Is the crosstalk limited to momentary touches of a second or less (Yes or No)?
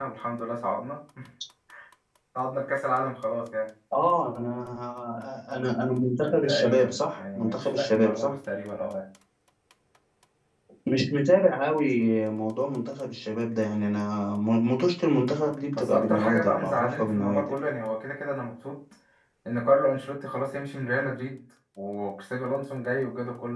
No